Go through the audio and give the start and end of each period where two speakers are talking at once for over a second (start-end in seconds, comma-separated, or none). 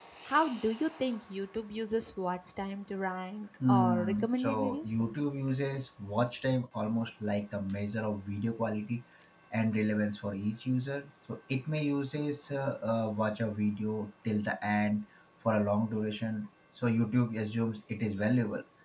3.7-4.9